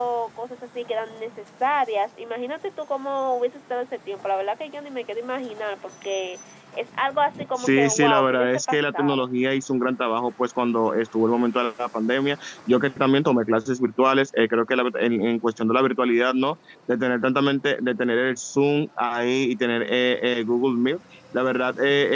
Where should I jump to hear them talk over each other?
7.6 s

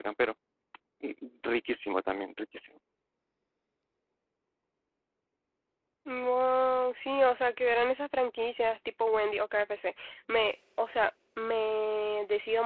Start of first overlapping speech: none

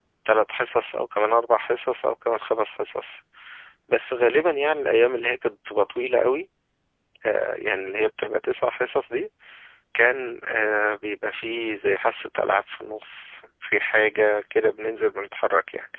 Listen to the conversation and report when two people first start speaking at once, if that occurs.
none

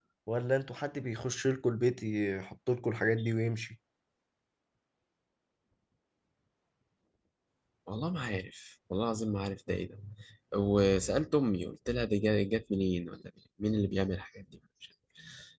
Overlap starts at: none

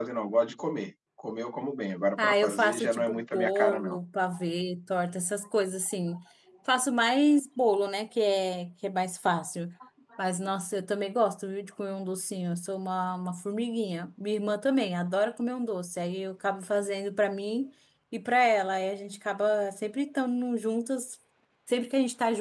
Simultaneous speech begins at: 2.2 s

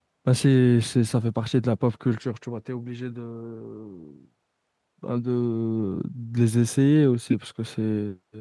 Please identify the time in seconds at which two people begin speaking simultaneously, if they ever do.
none

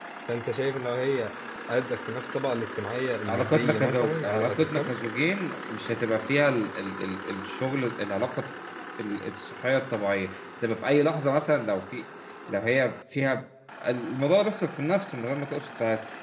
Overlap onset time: 3.3 s

